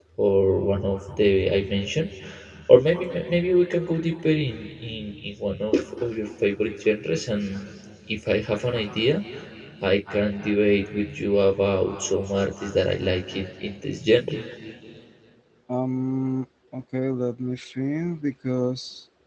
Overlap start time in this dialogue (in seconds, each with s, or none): none